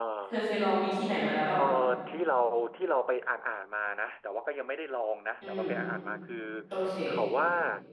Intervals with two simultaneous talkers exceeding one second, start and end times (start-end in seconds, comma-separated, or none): none